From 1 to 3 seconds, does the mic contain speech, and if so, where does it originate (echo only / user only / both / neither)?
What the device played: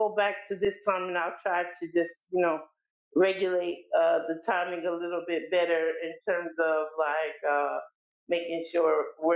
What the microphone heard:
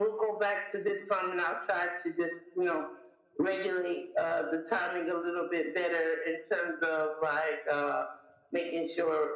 echo only